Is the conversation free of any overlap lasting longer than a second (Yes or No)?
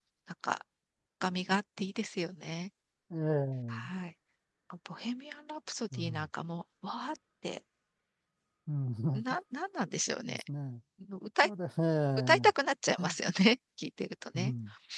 Yes